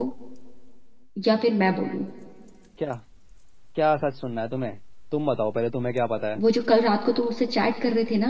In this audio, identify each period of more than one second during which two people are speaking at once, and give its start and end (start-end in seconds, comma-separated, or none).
none